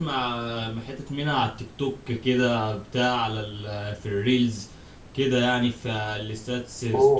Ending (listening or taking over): taking over